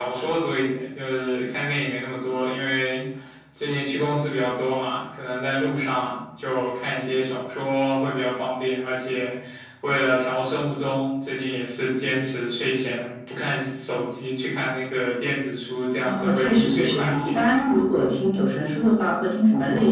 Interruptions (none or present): present